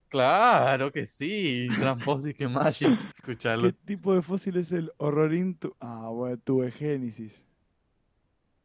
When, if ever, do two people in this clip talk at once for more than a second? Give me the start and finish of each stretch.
none

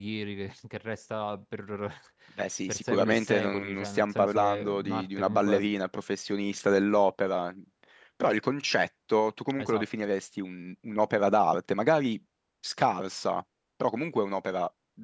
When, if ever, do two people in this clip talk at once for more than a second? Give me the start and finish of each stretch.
2.7-5.7

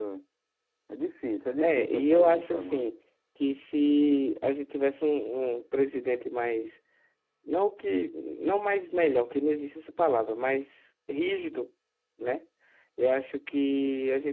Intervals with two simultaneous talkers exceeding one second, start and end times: 1.6-2.9

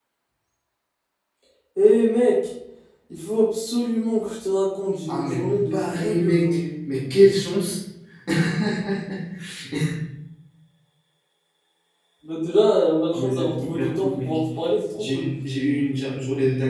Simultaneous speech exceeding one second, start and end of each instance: 5.1-6.6, 13.1-14.4

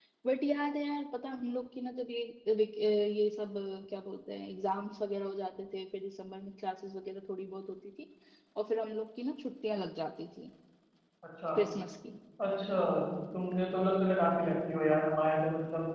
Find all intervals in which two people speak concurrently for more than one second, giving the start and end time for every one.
none

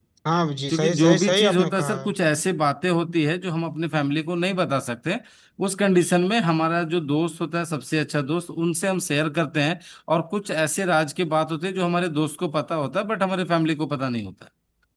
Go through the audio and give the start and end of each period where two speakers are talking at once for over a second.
0.7-1.9

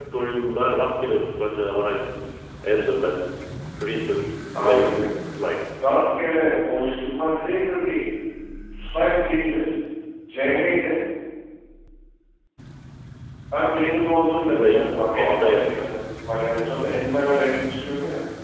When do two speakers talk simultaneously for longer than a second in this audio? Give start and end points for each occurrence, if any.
14.4-15.9

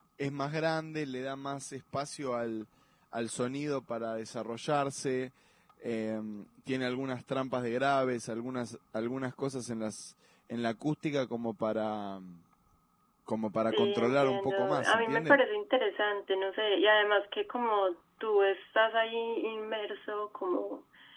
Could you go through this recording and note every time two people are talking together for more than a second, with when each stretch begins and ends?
13.7-15.4

